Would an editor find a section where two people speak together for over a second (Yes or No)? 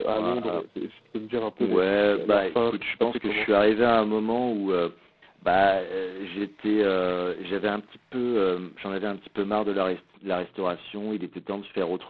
Yes